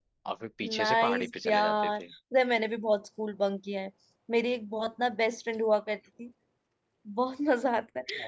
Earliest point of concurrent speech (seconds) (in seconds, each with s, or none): 0.8 s